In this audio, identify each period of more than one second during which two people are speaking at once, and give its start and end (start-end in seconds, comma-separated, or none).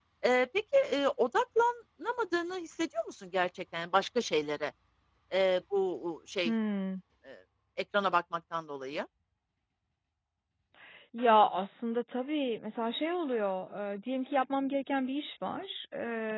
none